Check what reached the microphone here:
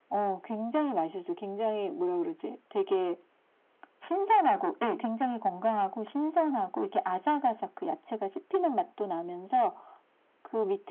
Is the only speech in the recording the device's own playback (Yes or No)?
Yes